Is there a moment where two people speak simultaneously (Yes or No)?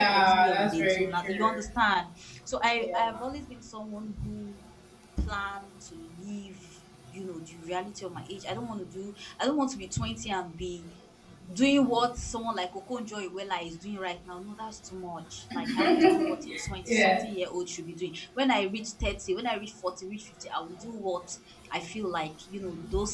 Yes